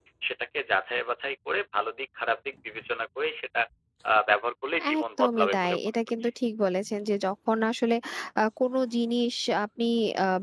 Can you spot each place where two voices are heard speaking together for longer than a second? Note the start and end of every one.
5.0-6.3

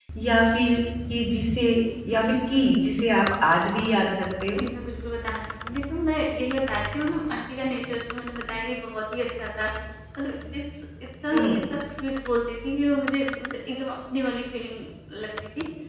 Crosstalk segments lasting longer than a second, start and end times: none

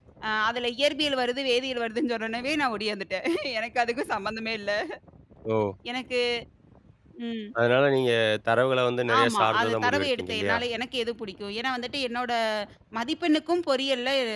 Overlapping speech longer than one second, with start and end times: 9.2-10.6

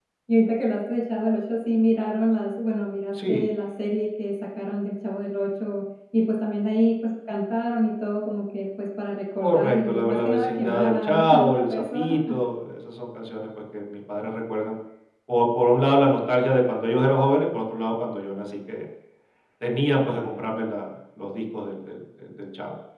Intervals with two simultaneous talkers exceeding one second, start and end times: 9.4-12.2

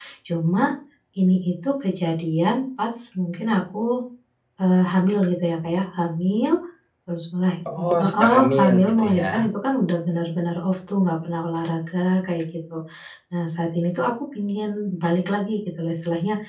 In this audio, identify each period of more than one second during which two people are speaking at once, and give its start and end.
8.0-9.5

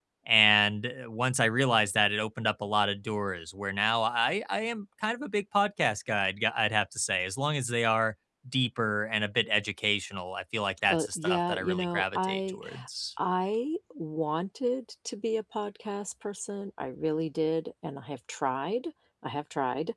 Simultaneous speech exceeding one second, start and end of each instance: 10.9-12.6

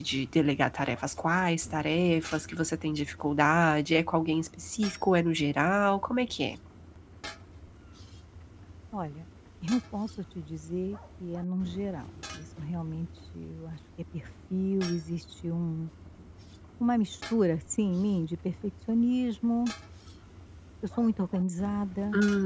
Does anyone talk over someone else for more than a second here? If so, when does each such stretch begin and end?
none

